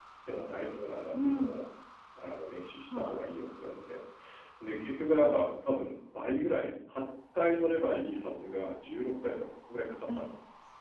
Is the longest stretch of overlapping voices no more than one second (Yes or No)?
Yes